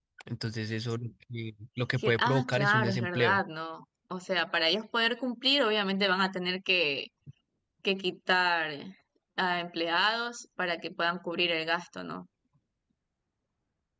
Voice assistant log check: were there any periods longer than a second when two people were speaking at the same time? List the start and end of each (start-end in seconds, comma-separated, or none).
2.0-3.4